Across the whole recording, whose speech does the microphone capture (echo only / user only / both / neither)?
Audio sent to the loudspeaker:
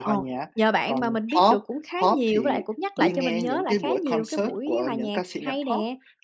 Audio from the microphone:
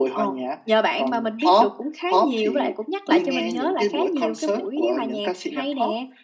echo only